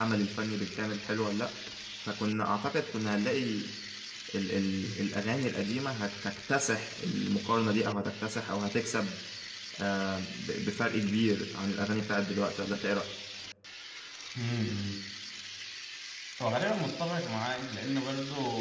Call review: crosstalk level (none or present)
none